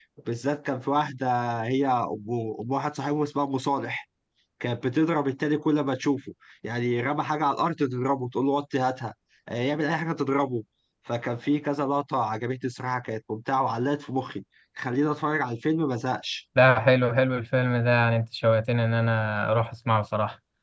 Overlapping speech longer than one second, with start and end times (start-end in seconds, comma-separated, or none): none